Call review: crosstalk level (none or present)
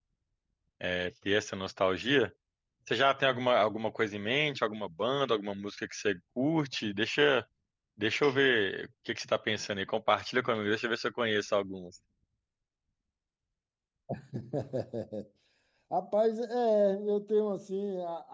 none